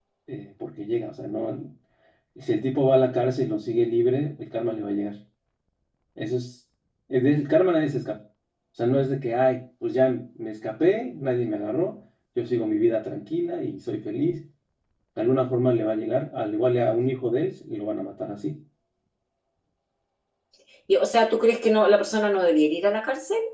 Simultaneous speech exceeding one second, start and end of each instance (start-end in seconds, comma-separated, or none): none